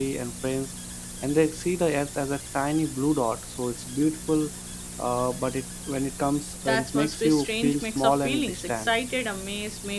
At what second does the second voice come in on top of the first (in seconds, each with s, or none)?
6.7 s